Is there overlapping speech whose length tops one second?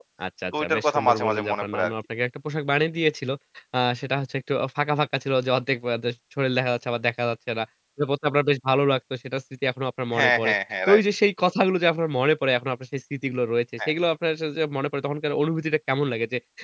Yes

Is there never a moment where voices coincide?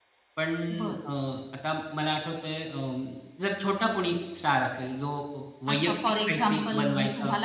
No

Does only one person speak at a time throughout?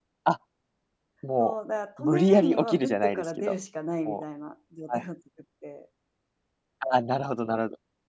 No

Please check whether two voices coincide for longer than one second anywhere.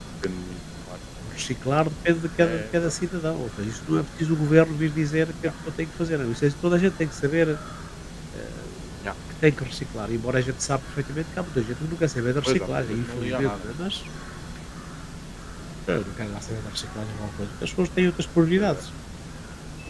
Yes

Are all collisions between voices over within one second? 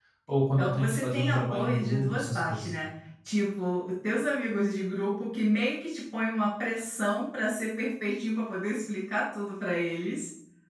No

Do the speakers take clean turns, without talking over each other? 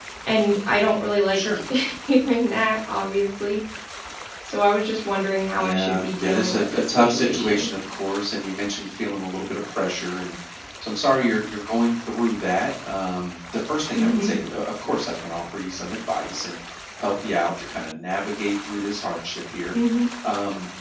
No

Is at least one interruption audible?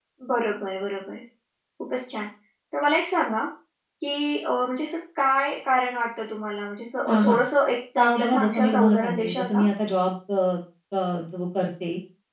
Yes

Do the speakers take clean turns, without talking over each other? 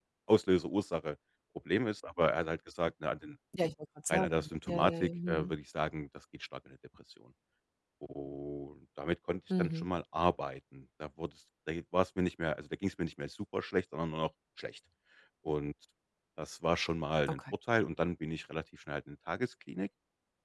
No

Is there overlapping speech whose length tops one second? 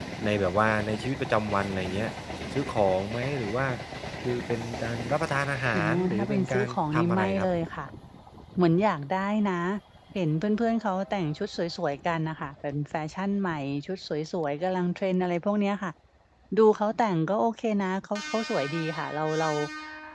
Yes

